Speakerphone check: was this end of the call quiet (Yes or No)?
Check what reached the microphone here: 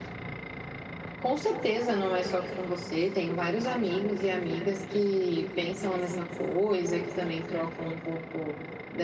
No